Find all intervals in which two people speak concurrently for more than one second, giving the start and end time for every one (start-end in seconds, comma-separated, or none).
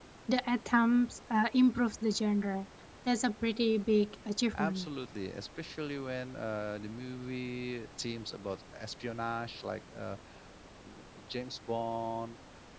none